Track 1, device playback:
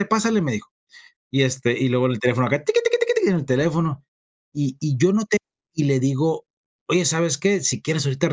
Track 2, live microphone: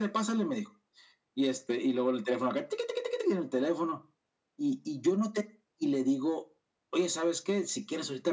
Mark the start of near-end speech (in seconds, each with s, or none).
none